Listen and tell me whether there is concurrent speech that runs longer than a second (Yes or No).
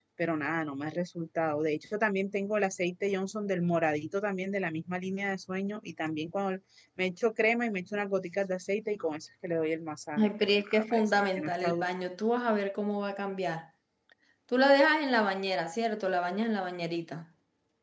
Yes